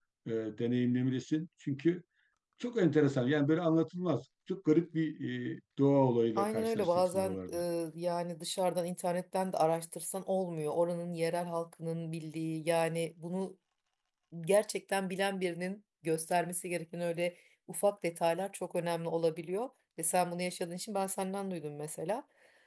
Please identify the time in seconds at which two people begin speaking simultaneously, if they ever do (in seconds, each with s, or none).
6.4 s